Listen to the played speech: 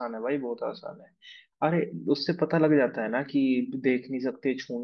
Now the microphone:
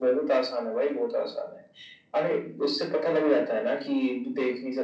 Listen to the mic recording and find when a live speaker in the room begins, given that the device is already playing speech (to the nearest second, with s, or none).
none